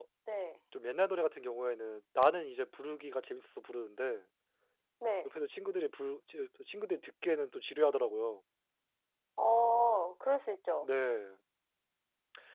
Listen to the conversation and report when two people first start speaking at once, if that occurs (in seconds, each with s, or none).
none